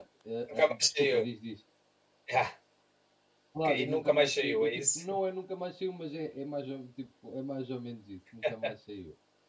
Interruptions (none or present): present